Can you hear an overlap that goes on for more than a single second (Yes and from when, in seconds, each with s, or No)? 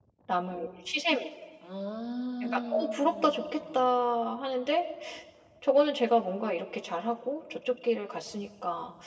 Yes, from 2.4 s